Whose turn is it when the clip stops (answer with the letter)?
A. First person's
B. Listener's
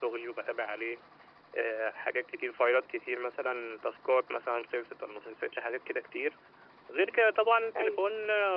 A